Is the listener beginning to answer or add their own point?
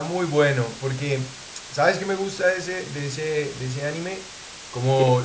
No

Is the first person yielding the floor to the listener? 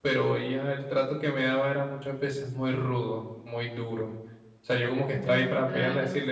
No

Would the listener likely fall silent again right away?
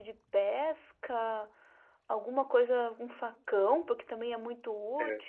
Yes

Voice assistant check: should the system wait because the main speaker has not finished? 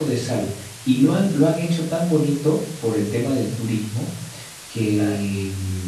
Yes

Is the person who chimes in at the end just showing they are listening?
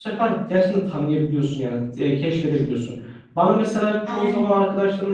Yes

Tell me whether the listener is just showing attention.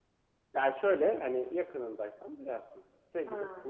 Yes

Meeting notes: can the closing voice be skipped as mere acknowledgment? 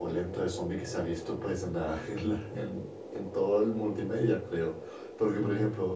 Yes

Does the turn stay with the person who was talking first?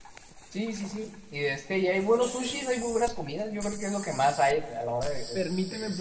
No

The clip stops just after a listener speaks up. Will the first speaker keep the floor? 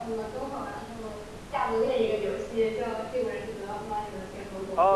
No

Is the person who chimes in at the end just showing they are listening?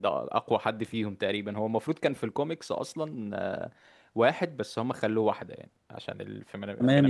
No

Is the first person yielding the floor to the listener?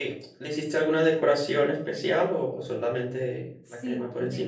Yes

